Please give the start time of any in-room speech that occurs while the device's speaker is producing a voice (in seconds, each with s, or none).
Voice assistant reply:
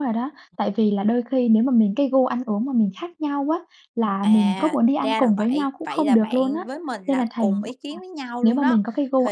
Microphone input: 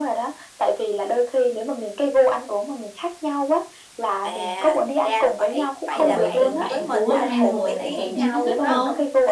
6.0 s